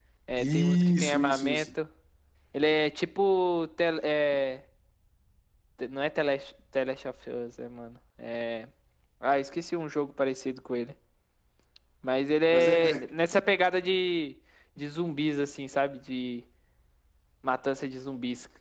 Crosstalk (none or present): present